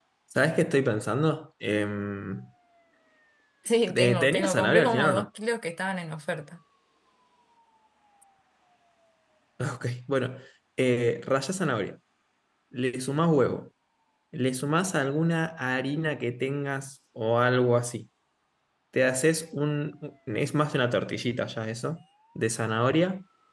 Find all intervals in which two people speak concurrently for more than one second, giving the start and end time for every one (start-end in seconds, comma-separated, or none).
3.9-5.3